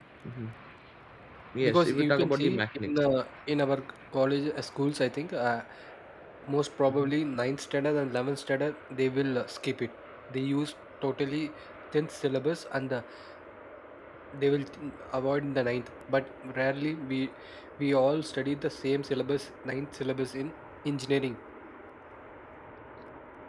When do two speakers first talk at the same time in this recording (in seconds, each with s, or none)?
1.6 s